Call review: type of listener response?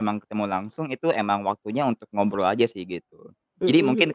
listening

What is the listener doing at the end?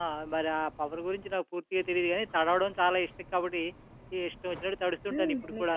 taking over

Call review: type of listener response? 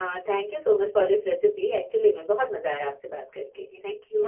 taking over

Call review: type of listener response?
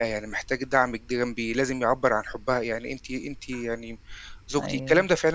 listening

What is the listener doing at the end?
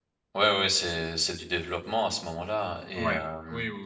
taking over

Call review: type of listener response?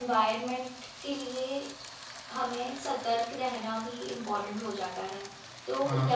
listening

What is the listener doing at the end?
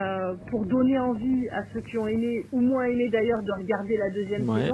listening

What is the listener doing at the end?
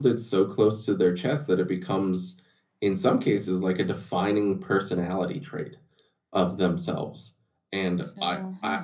listening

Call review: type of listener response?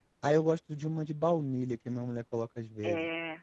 taking over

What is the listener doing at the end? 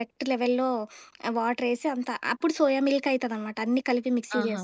listening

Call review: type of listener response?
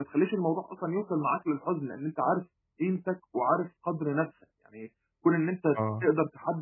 listening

